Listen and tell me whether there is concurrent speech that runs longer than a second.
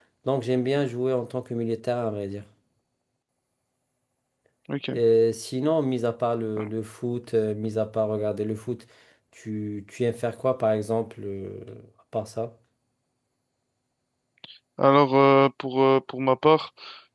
No

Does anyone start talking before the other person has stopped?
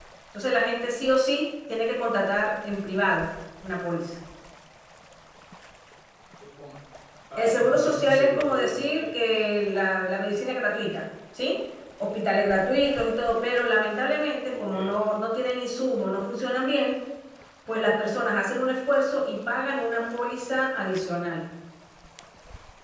Yes, from 7.4 s

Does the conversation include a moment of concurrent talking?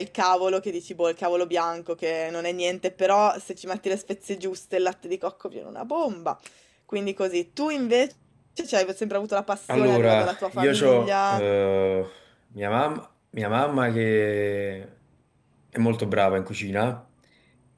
Yes, from 9.7 s

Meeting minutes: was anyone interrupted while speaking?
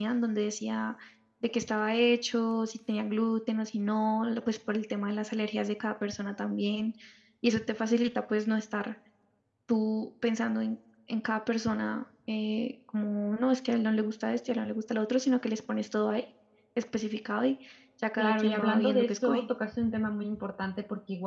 Yes, from 18.2 s

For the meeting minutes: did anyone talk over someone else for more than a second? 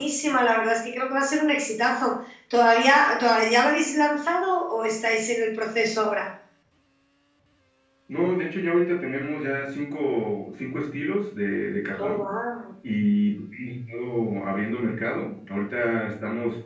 No

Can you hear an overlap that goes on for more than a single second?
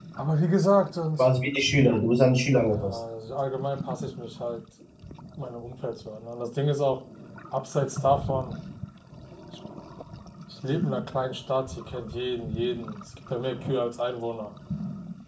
No

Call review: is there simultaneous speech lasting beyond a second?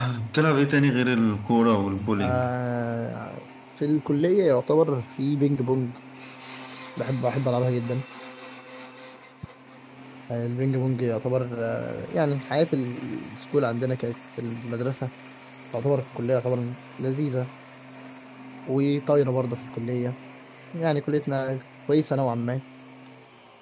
No

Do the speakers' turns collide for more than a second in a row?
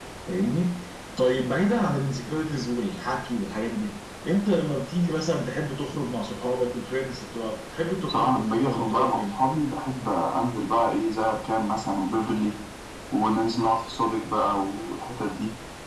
Yes, from 8.1 s

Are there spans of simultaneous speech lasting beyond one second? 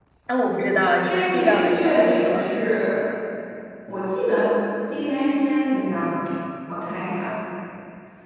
Yes, from 1.1 s

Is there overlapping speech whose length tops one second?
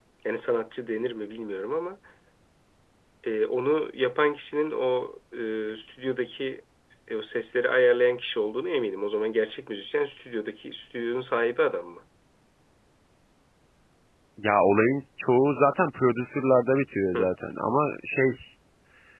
No

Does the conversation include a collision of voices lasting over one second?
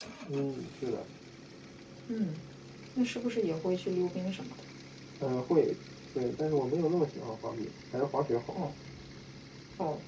No

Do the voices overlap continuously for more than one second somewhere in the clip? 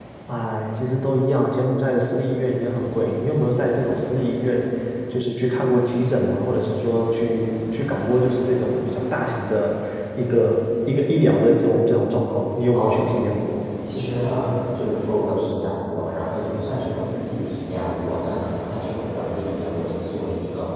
No

